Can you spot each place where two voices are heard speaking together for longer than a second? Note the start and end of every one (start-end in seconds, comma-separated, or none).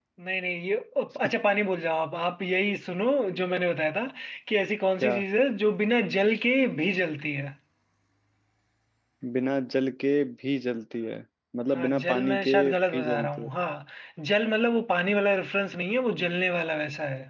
11.7-13.5